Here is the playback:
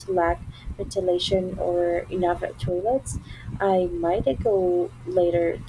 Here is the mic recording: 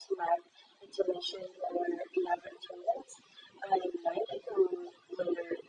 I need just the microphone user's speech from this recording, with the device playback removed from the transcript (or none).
none